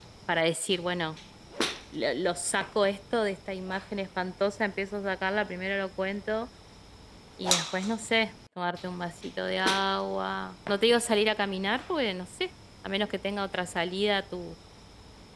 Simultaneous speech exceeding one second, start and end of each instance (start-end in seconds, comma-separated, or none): none